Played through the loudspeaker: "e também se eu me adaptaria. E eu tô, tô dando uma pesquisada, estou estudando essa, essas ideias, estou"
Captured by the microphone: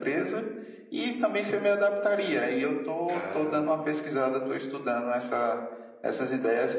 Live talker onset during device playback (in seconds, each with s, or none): 3.1 s